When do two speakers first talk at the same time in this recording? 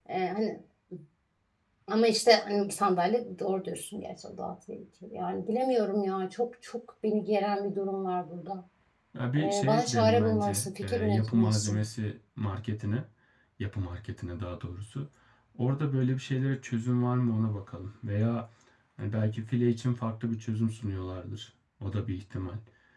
9.4 s

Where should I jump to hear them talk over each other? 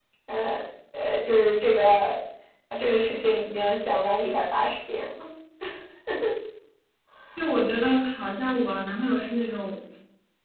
none

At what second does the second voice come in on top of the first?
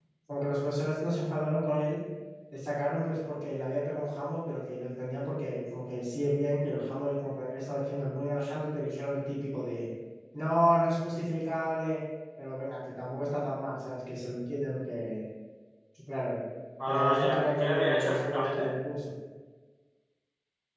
16.9 s

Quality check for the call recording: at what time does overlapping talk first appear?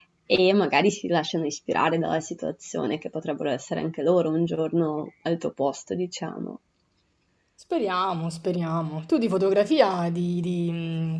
none

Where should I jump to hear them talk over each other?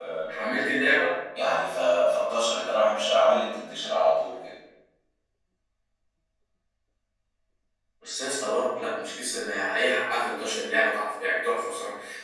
none

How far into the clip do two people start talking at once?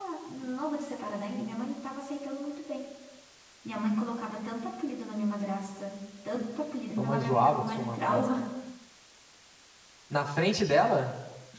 7.0 s

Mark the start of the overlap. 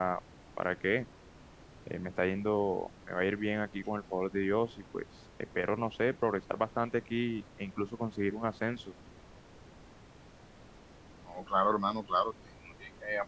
none

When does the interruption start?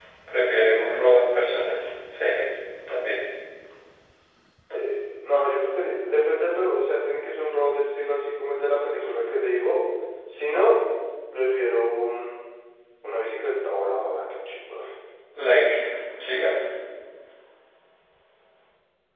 none

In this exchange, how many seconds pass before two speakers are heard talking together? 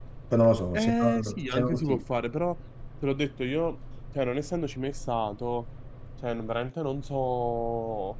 0.7 s

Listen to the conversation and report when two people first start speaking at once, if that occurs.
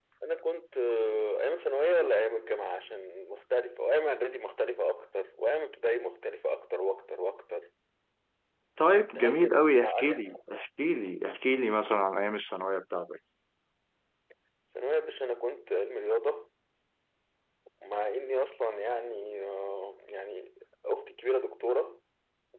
9.2 s

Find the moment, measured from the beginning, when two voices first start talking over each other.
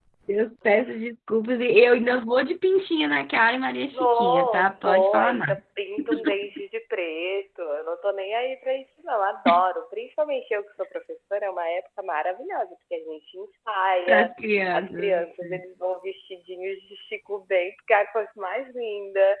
3.9 s

